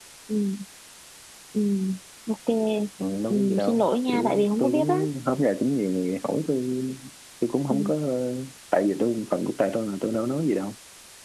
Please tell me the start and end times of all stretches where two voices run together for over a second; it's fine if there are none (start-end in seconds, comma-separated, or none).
3.3-4.9